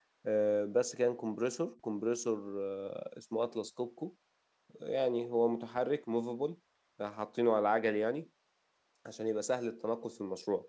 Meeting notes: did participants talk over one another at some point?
No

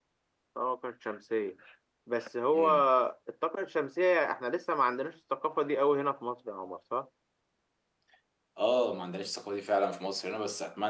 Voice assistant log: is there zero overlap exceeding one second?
Yes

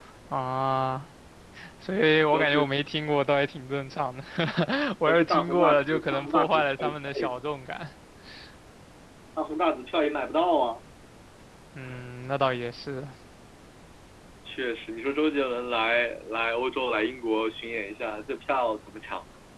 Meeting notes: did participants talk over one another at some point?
Yes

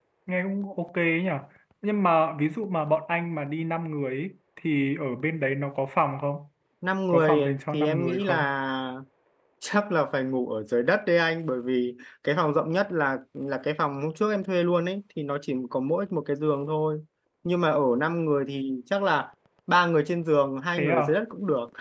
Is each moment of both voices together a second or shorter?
No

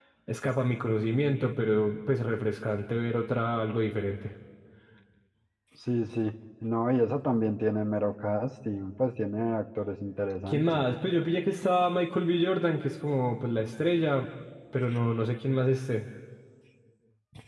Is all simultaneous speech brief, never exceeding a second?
Yes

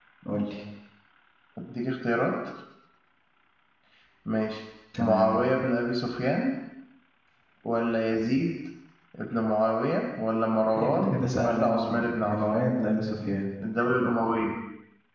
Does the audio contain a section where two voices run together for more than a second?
Yes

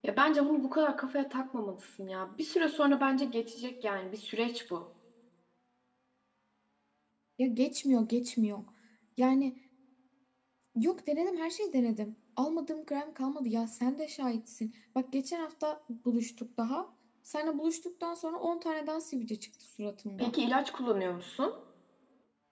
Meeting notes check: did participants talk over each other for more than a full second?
No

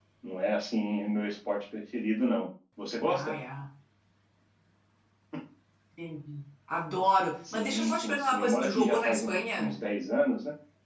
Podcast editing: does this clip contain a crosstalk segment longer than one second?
Yes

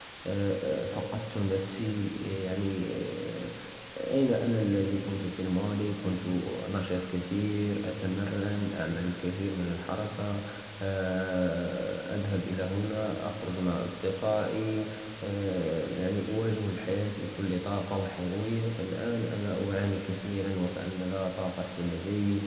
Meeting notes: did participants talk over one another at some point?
No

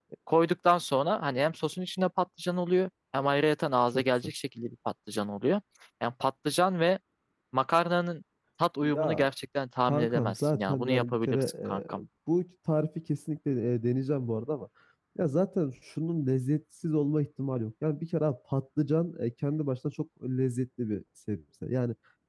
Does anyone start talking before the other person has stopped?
Yes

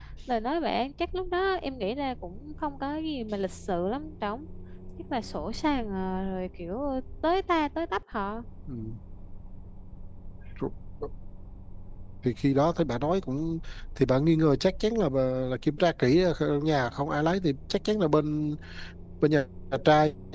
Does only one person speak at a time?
Yes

